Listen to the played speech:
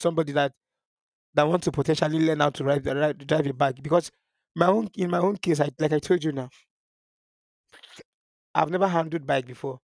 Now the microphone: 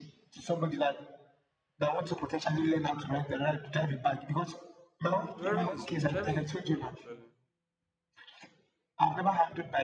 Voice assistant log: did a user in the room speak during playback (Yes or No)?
Yes